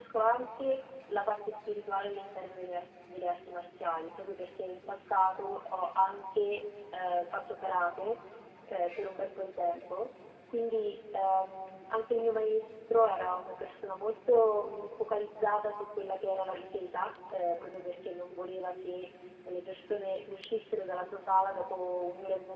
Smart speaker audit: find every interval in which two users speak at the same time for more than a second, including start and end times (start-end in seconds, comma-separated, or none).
none